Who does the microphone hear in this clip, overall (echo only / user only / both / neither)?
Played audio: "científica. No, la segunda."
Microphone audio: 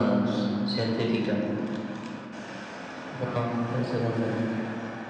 echo only